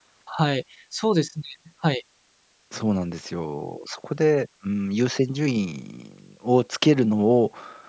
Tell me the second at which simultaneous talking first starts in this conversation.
none

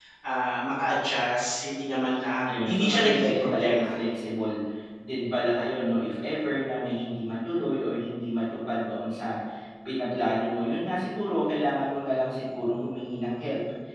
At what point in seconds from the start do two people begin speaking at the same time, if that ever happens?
2 s

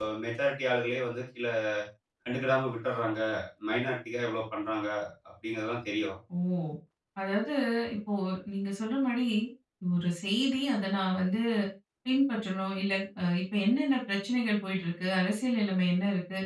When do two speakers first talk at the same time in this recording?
none

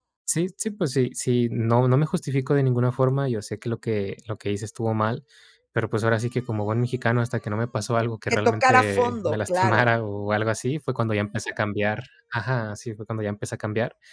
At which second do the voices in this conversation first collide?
8 s

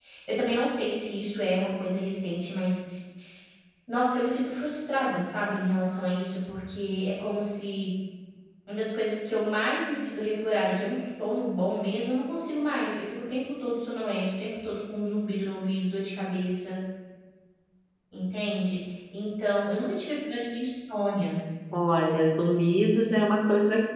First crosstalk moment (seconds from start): none

